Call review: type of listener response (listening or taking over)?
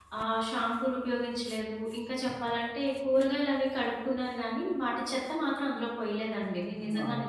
taking over